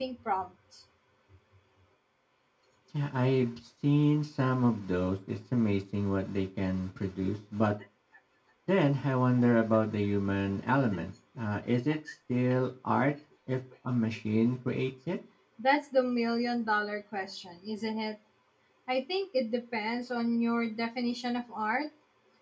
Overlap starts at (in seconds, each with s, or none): none